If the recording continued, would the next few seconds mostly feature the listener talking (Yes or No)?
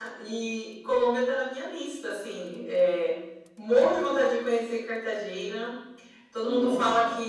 No